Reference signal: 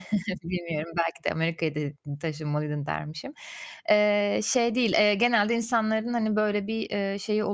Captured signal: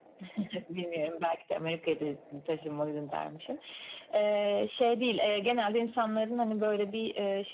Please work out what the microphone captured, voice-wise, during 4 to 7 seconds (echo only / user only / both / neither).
echo only